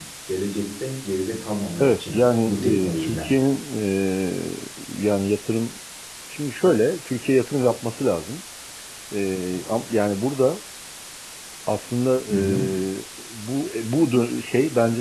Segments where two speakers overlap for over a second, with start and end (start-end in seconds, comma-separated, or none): 1.8-3.3